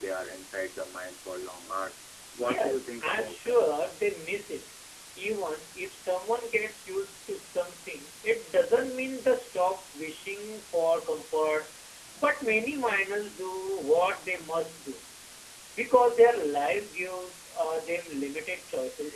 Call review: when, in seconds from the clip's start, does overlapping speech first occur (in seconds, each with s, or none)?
2.4 s